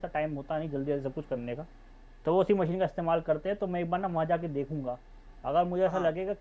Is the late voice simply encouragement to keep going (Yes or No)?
Yes